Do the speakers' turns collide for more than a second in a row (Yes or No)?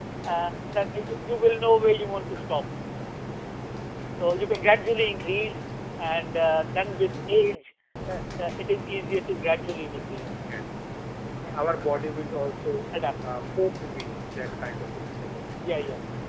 No